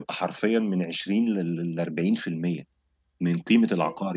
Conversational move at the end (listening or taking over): listening